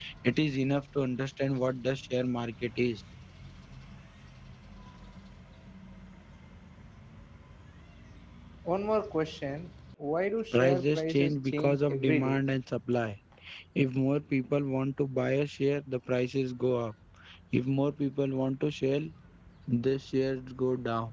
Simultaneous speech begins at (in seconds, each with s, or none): 10.5 s